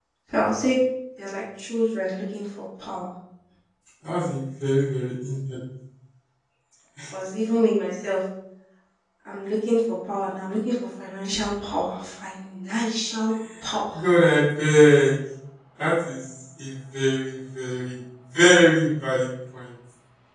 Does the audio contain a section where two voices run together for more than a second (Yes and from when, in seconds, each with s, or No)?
No